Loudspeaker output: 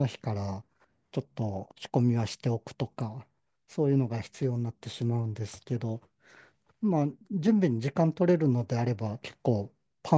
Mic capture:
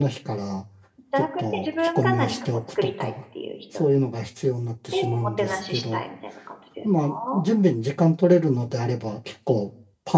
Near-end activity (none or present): present